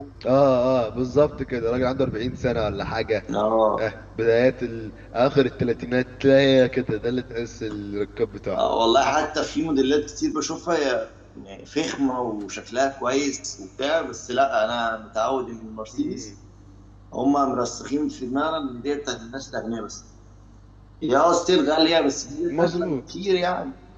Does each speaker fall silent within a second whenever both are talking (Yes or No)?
Yes